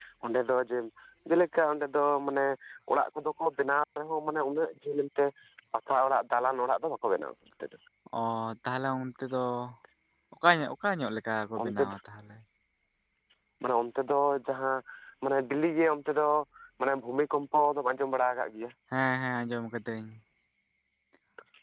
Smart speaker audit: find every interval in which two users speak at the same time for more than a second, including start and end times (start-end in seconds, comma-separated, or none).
none